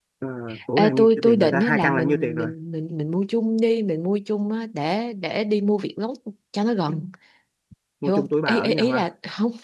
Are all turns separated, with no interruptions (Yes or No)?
No